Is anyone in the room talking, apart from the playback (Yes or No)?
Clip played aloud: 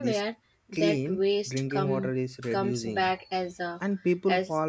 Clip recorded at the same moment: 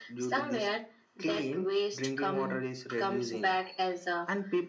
No